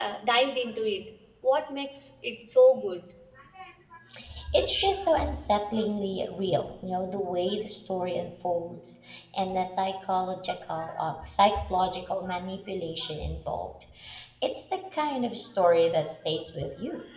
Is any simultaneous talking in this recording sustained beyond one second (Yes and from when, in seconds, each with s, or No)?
No